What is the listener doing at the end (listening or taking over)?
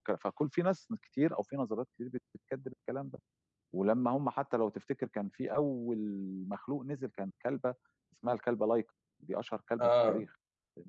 listening